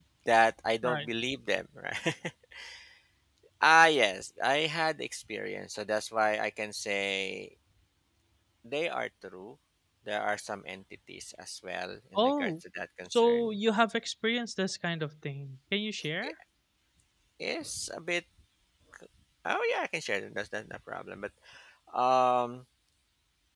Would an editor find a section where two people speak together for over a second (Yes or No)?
No